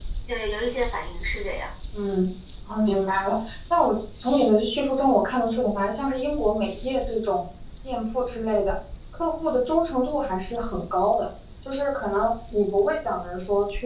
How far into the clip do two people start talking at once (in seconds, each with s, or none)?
none